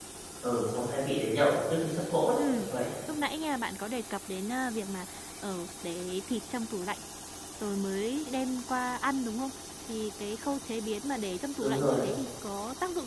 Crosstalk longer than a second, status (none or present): none